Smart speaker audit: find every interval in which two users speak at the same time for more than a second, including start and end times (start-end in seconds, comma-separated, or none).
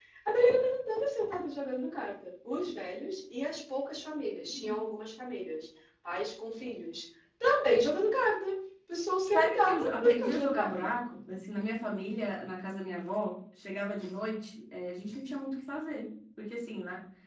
9.3-10.9